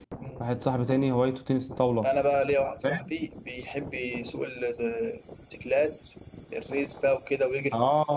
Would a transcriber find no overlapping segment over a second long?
Yes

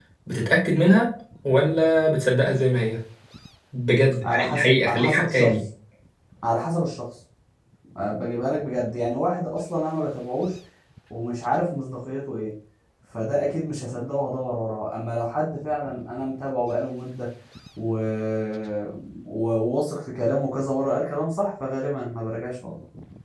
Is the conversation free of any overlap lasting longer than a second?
No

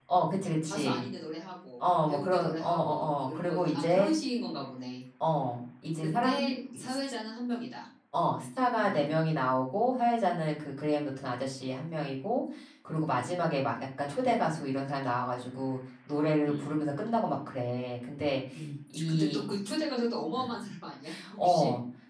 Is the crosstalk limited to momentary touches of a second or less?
No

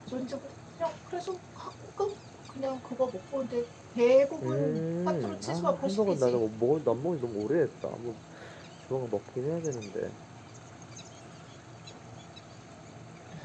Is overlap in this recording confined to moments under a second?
No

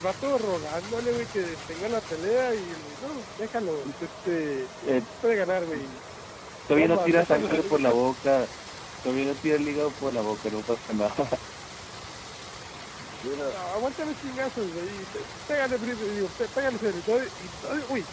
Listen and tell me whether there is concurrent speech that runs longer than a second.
Yes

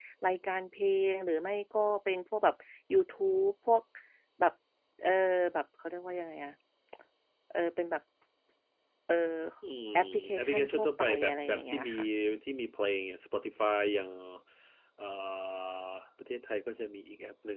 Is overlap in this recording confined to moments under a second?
No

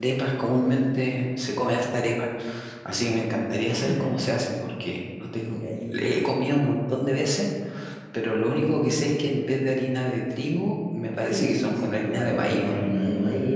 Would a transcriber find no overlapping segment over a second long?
No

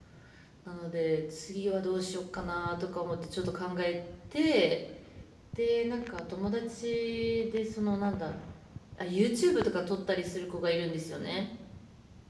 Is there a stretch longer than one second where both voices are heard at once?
No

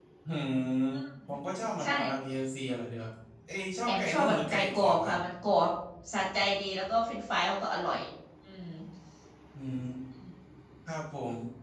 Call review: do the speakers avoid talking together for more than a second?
No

